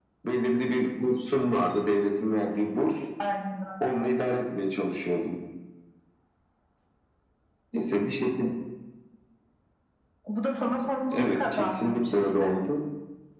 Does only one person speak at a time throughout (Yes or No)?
No